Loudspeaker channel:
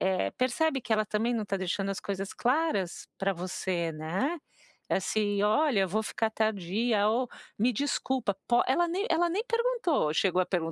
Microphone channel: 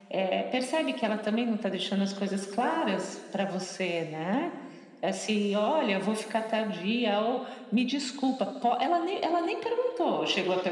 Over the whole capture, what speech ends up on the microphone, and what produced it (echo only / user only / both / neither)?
echo only